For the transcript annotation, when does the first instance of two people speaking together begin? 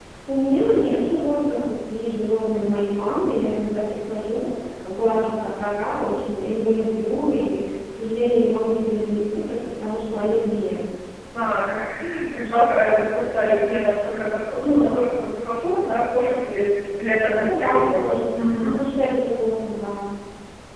17.4 s

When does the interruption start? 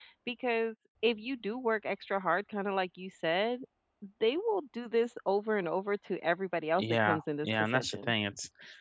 6.8 s

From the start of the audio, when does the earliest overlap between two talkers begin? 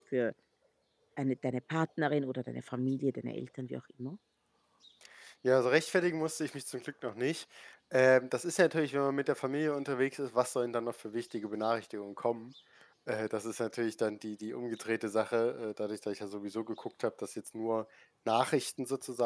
none

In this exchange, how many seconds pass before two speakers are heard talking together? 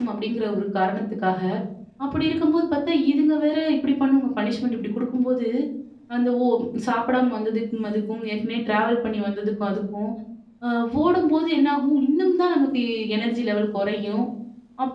none

